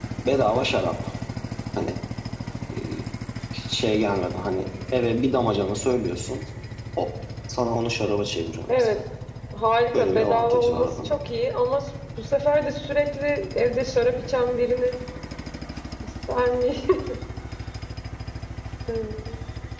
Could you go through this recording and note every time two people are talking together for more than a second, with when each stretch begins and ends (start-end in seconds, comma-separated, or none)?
9.9-11.1